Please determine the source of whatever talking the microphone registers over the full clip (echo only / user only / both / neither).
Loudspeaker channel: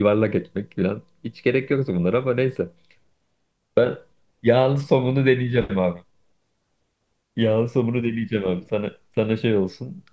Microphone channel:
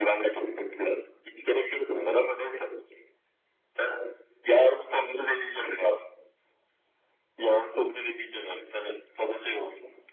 echo only